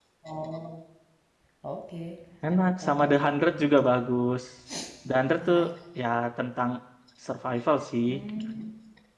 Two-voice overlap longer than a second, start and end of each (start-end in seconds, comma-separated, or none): 2.5-3.9